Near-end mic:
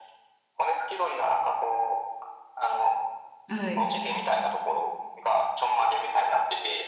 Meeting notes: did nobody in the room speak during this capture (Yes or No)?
No